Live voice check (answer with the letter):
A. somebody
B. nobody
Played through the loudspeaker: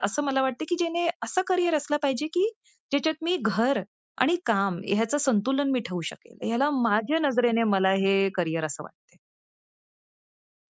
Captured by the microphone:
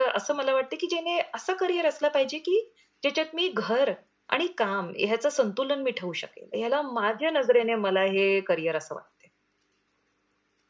B